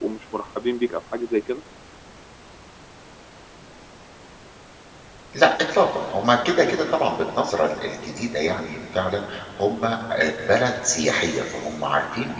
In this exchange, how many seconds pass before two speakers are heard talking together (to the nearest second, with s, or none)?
none